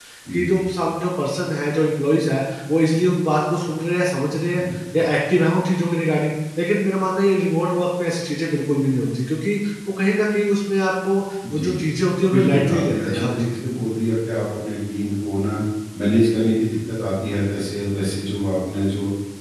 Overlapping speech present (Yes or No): Yes